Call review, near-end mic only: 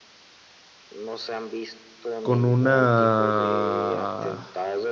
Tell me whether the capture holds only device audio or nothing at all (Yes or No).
No